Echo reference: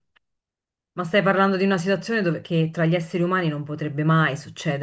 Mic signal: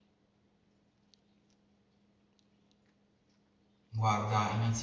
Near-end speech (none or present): present